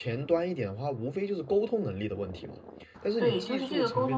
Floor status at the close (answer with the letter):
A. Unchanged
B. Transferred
B